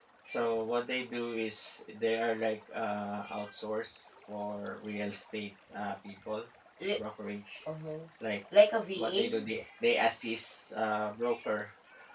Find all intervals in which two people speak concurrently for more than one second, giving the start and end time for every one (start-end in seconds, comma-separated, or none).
none